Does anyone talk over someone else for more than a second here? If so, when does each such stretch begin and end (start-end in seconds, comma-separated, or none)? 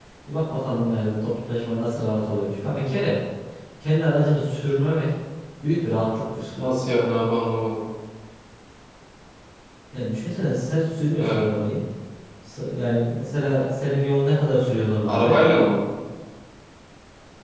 none